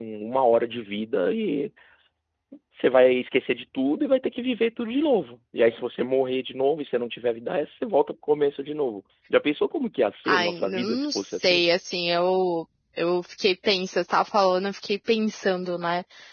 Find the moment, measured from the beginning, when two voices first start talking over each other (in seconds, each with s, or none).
10.3 s